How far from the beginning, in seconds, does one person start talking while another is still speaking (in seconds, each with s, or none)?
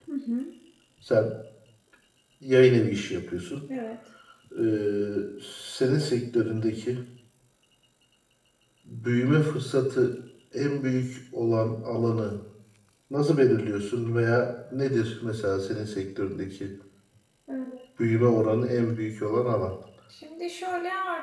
none